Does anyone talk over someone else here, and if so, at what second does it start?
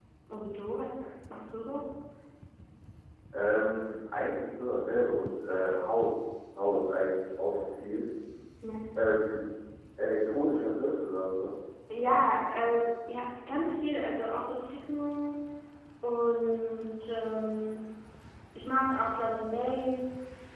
none

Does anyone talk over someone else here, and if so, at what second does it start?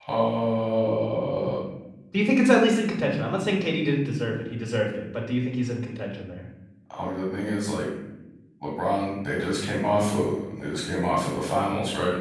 none

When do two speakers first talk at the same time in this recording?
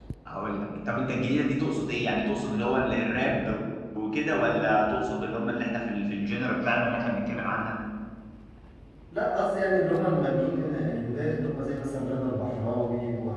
none

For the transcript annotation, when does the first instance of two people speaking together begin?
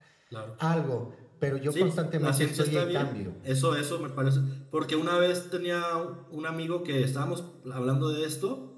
1.7 s

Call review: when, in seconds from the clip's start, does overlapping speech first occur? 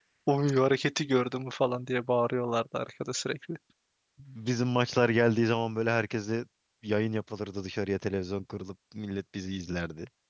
none

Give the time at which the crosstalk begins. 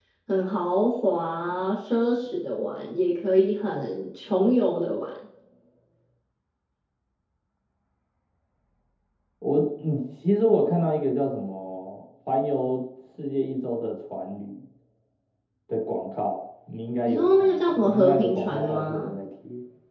17.1 s

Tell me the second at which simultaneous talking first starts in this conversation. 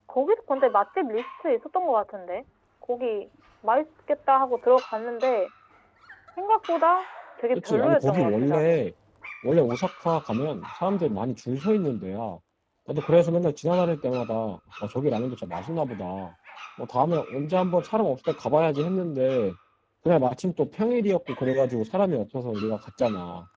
7.5 s

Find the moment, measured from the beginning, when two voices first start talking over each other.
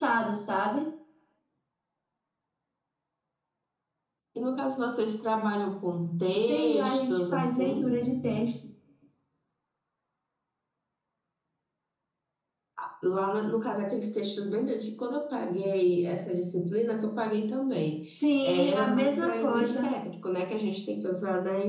6.4 s

